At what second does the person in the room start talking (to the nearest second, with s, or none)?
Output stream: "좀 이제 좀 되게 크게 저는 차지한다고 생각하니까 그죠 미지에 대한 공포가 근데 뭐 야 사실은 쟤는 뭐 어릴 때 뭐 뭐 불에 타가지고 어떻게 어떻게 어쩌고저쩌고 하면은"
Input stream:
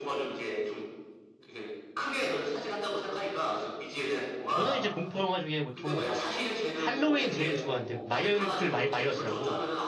4 s